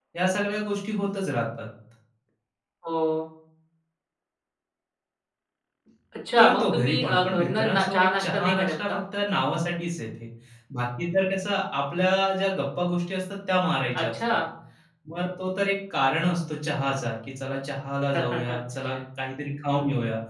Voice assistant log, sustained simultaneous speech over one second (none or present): present